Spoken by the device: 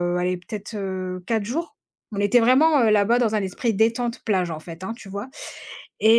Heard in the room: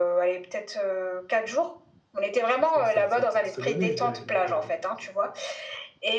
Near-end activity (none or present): present